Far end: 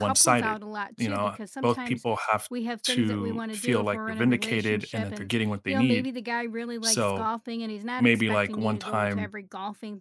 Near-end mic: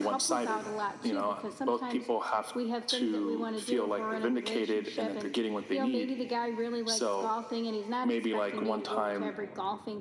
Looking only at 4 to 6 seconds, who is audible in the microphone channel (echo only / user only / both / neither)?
echo only